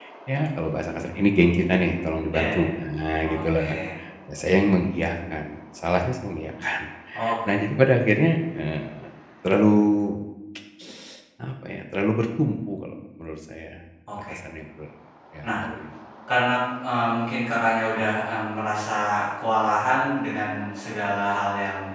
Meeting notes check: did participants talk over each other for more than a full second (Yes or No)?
No